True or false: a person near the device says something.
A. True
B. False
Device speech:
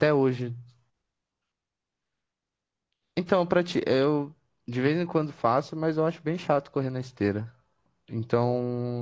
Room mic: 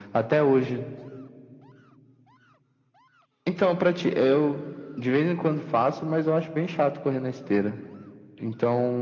B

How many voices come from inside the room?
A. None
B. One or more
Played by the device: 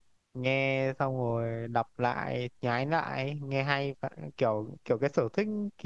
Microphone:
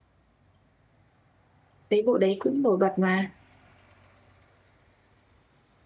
B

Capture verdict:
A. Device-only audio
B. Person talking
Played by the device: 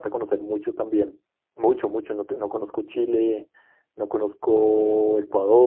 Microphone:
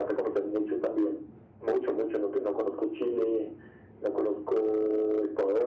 A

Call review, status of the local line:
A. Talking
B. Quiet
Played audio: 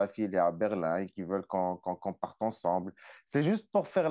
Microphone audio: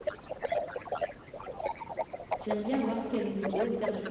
A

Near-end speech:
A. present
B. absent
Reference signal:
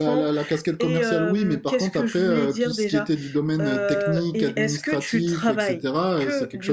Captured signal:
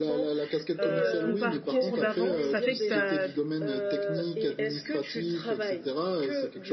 A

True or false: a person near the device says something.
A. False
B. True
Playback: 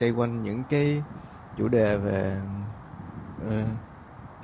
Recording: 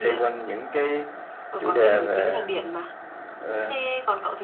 B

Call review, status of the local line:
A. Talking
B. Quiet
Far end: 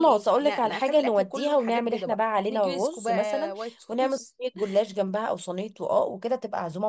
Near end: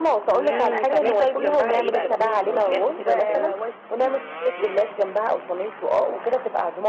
A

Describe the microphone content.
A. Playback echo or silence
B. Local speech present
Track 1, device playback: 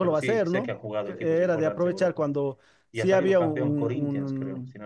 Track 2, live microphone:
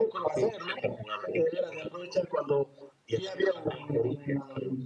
A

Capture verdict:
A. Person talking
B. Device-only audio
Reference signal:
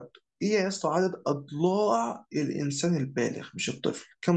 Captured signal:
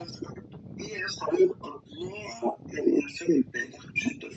B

